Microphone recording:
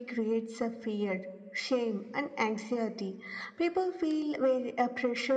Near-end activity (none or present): none